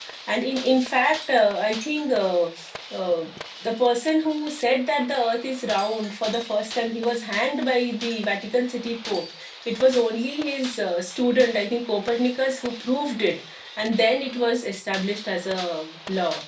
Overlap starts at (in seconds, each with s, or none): none